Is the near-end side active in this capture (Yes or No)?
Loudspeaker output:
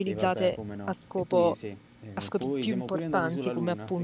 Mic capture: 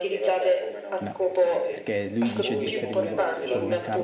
Yes